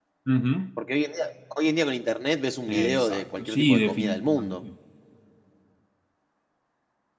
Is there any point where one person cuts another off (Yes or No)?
Yes